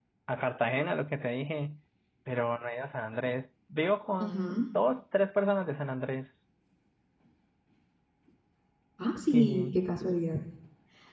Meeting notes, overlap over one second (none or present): none